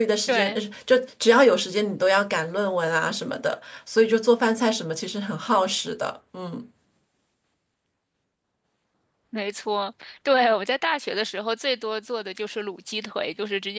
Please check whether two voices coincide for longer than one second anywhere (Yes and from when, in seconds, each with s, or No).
No